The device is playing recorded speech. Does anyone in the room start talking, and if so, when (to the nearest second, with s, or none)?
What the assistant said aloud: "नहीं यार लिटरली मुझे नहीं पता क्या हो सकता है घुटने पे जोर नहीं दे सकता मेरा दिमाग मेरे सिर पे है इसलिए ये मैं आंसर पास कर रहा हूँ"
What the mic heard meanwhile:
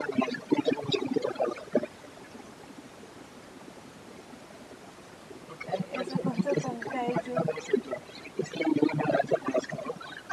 6 s